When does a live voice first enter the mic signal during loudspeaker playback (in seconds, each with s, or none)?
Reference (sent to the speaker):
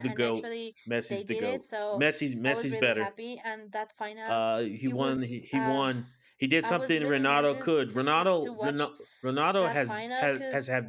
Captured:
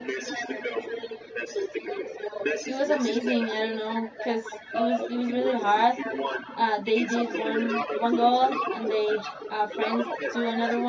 2.6 s